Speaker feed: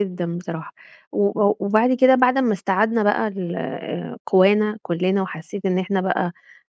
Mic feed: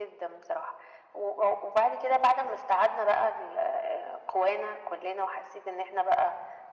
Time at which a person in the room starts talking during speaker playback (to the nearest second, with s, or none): none